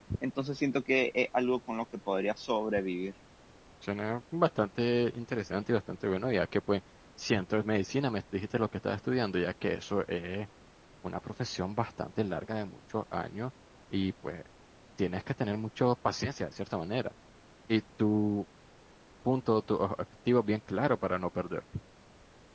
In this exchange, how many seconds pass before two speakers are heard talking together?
none

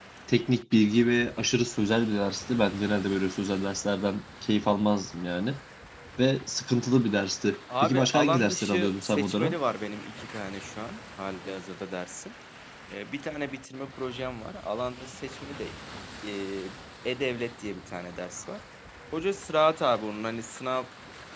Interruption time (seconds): 7.7 s

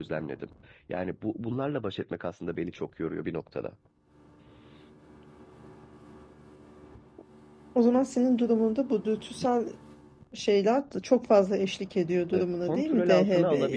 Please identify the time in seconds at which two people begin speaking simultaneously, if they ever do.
12.3 s

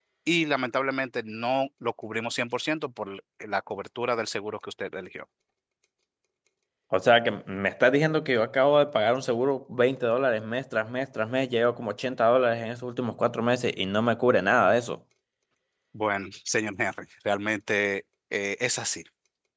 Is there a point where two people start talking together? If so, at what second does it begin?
none

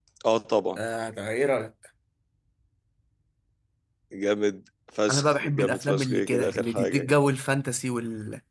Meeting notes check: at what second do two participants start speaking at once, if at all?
5.1 s

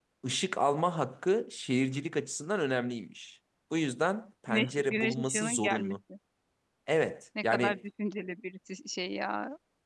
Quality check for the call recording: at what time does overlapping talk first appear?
4.5 s

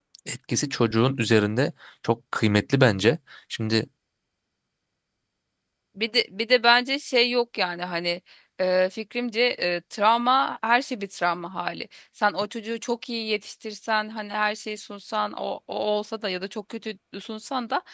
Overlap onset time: none

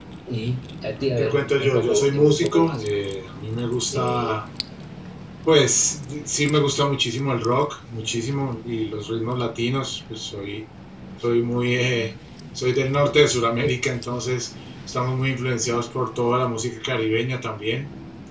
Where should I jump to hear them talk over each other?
1.2 s

